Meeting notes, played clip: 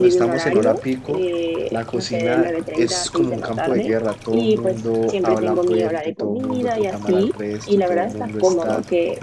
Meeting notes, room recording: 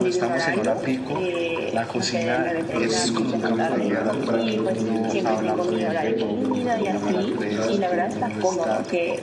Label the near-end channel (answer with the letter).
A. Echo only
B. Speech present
B